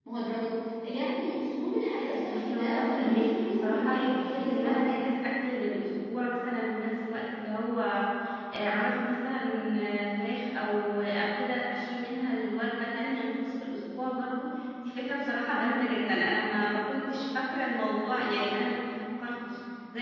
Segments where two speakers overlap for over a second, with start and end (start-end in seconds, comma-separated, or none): 2.0-4.9